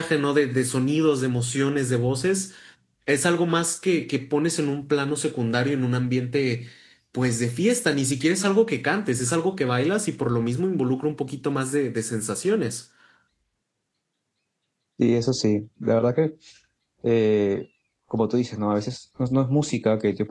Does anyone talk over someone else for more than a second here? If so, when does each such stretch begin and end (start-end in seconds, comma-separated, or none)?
none